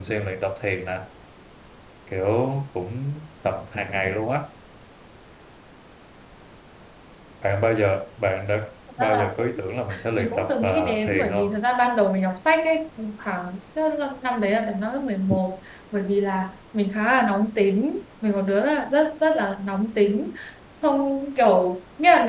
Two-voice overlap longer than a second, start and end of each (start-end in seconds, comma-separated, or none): 10.2-11.6